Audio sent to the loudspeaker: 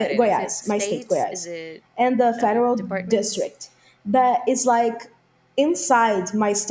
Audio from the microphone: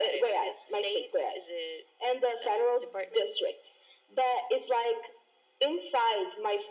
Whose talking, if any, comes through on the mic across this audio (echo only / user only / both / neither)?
echo only